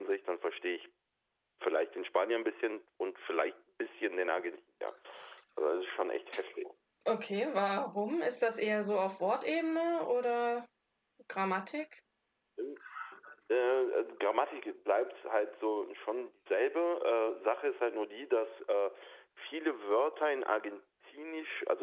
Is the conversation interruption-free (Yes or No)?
Yes